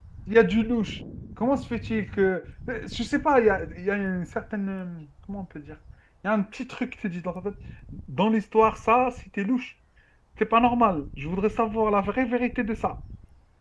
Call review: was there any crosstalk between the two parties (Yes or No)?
No